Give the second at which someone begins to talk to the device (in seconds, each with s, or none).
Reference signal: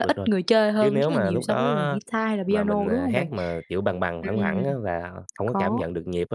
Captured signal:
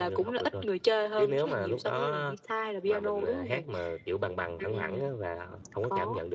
none